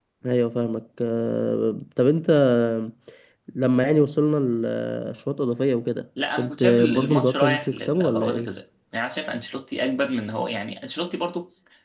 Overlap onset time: 6.2 s

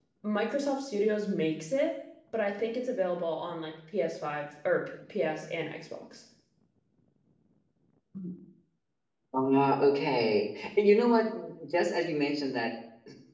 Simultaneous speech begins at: none

